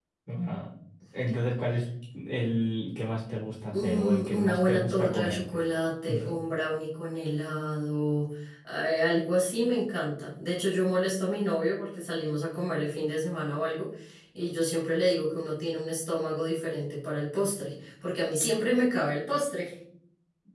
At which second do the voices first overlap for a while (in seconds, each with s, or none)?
3.7 s